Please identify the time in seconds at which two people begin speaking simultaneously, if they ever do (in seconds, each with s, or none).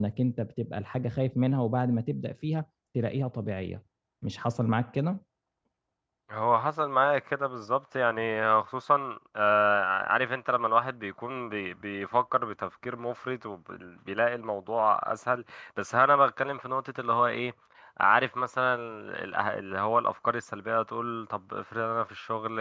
none